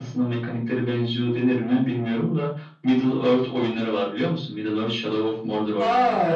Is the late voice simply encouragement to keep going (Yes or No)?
No